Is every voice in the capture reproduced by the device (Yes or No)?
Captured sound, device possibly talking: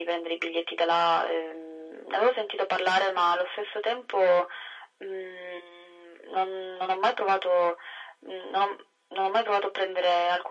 Yes